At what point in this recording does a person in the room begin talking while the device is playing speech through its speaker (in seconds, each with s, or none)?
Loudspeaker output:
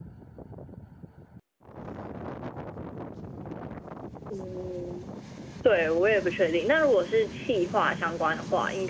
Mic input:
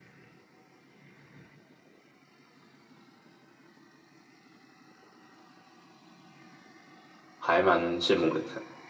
7.4 s